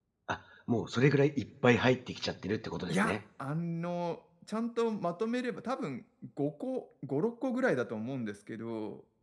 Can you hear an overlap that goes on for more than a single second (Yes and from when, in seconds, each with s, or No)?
No